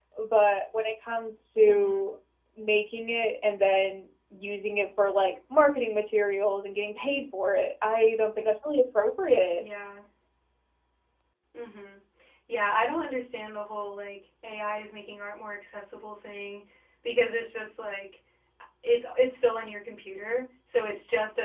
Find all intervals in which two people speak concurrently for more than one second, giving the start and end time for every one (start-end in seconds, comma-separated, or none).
none